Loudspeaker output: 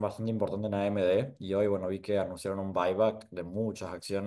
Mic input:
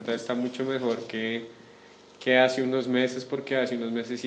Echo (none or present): none